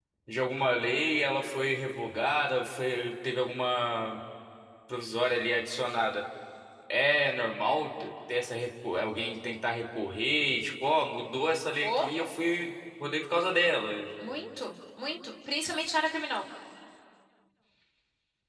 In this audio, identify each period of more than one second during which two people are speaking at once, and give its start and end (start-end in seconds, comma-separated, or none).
none